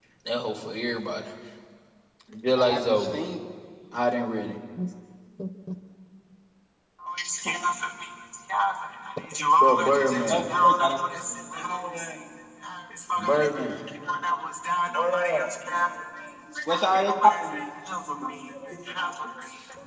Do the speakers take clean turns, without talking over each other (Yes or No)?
No